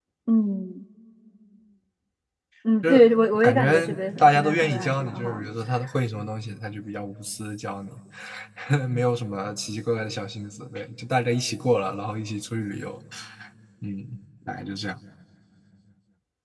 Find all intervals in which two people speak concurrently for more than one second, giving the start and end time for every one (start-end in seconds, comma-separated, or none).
3.4-5.5